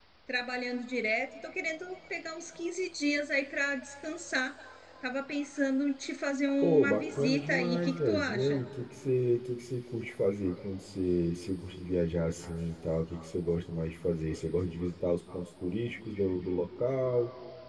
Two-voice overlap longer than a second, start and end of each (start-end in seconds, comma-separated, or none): 6.6-8.6